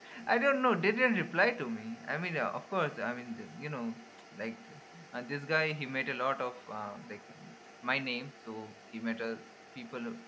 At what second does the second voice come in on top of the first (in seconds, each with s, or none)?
none